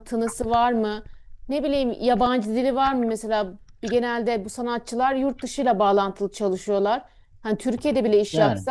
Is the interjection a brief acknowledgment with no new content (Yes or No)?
Yes